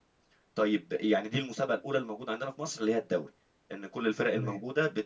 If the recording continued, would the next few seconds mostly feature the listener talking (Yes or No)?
No